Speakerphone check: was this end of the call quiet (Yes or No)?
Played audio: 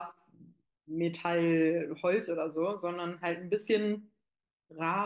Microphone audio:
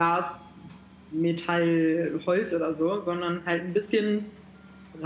Yes